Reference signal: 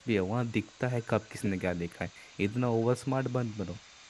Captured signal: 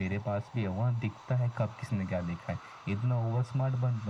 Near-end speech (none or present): none